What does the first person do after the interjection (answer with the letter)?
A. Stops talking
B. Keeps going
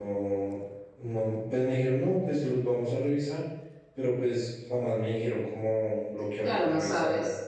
A